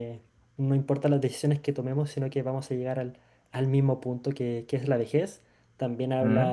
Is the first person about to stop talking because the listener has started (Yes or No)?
No